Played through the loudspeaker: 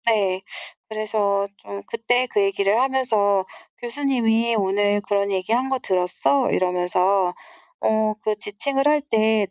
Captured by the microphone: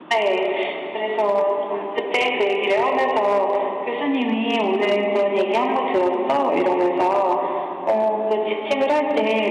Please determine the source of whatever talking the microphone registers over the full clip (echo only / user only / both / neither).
echo only